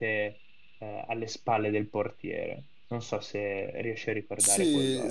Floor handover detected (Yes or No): Yes